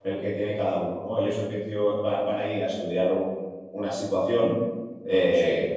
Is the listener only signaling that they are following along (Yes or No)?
Yes